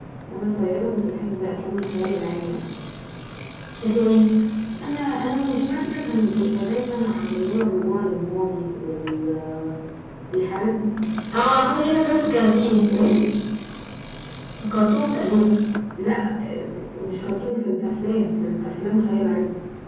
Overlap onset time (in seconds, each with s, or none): 11.9 s